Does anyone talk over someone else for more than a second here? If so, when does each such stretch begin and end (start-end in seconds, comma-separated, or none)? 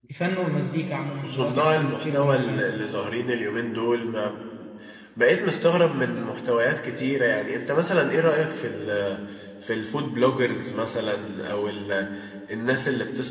1.2-2.7